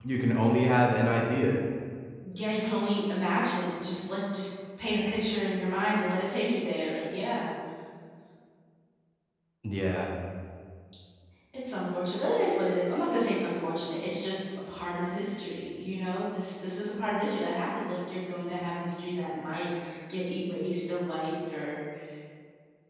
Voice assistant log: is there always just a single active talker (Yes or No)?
Yes